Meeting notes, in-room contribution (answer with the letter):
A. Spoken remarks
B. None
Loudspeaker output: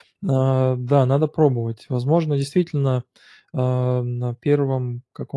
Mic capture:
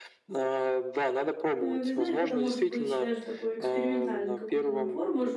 A